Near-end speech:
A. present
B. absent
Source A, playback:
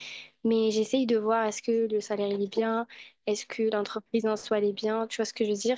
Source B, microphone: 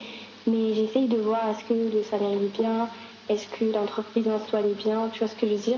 B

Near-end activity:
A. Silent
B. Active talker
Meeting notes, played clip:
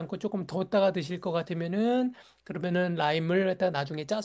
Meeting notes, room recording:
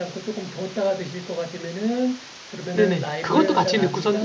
B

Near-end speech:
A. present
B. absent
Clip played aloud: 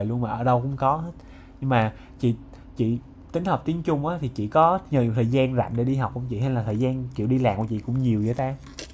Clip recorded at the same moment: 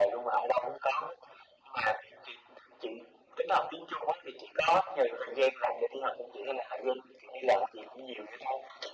B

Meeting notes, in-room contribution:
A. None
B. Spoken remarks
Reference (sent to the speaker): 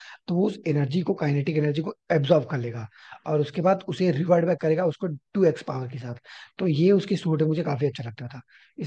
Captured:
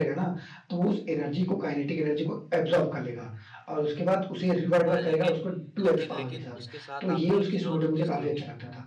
B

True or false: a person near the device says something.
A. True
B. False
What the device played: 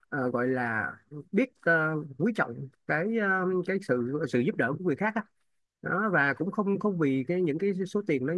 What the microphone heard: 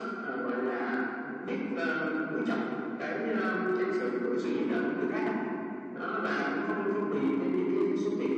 B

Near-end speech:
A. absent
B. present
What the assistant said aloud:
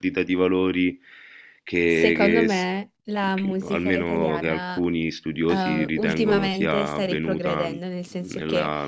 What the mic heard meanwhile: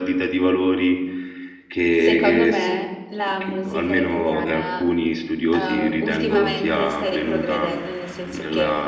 A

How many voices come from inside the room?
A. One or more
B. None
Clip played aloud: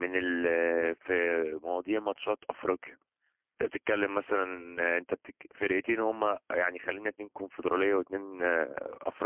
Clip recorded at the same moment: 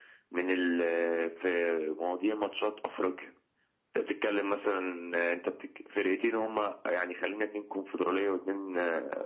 B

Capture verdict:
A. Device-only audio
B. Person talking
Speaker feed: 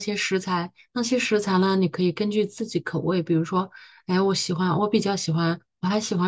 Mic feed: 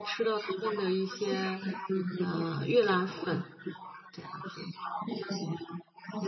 B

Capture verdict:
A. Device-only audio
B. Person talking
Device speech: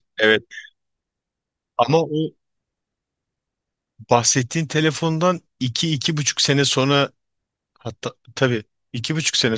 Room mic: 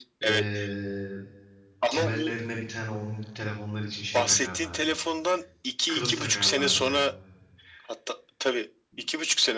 B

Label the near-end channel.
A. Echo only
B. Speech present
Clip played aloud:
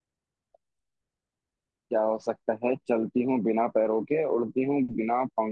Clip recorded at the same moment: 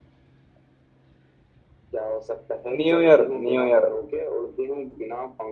B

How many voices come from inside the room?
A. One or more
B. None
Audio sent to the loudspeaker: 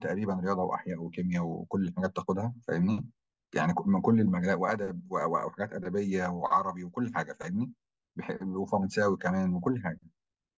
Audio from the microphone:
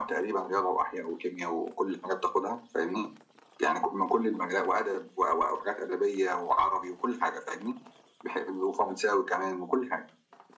B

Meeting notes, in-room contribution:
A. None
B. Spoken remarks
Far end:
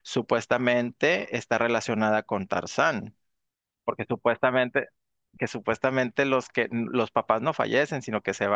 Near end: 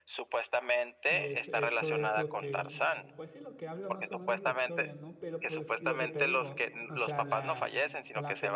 B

